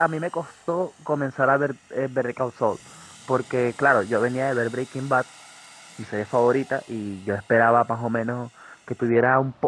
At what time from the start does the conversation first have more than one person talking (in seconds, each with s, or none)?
none